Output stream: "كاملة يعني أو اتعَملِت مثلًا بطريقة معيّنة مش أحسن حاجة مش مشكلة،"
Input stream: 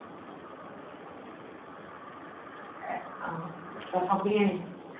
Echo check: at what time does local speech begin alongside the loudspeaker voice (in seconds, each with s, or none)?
2.8 s